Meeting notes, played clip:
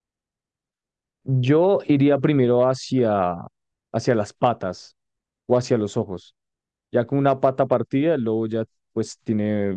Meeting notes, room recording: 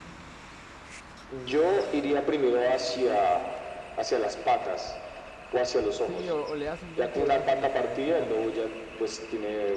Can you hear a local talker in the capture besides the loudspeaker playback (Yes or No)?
Yes